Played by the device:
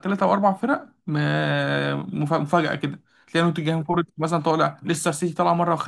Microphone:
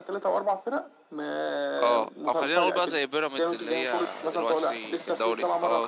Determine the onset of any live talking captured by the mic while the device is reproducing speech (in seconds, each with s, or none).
1.8 s